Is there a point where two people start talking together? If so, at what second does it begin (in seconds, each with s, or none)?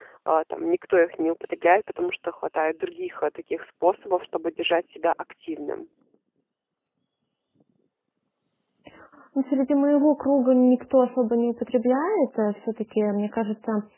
none